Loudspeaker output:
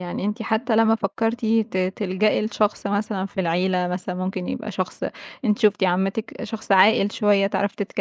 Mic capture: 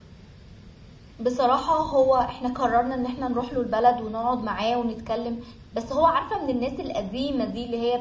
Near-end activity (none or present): present